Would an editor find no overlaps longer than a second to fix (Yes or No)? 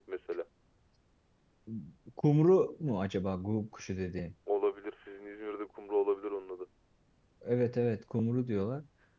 Yes